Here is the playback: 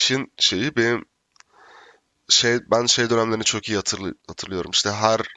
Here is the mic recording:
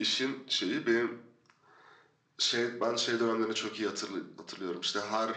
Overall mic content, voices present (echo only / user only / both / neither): echo only